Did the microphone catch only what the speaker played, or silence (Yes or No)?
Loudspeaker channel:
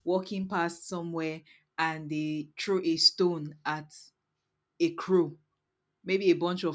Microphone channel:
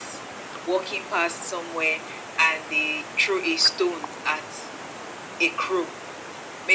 Yes